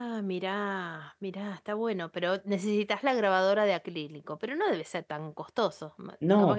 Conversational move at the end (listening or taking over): taking over